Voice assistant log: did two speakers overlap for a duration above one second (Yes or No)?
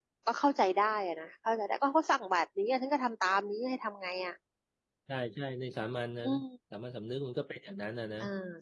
No